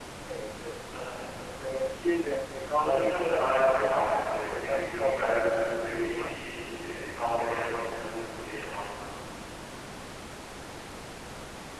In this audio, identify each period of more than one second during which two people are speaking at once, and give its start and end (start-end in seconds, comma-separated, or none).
2.8-6.3